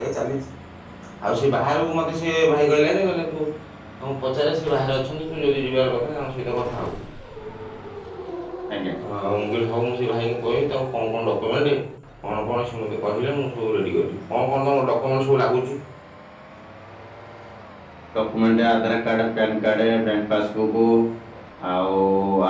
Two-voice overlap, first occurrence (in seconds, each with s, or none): none